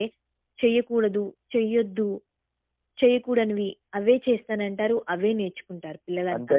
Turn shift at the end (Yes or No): Yes